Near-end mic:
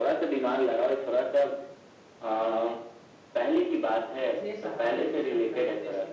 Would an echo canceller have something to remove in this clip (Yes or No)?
Yes